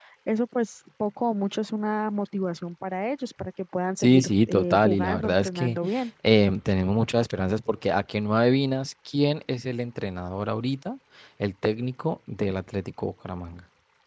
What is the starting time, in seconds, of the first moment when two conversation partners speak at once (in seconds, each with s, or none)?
4.0 s